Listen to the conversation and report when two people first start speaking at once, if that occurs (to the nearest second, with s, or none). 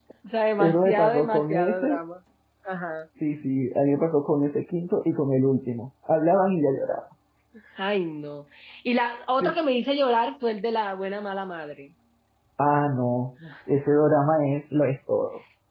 1 s